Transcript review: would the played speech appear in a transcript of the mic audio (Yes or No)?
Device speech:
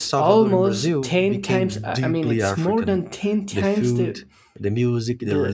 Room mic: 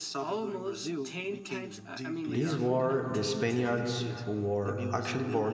Yes